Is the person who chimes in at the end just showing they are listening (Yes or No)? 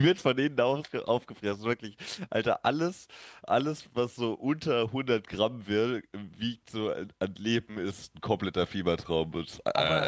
No